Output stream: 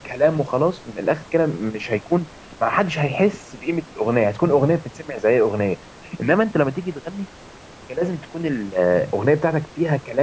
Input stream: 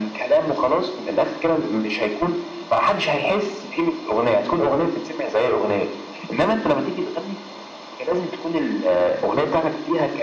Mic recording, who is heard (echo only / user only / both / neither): echo only